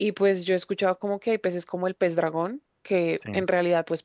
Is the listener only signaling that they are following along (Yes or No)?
Yes